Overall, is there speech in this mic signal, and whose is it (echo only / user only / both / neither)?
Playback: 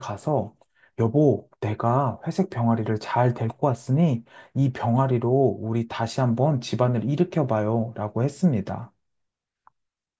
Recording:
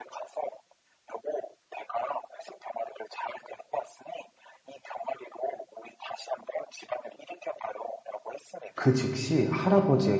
both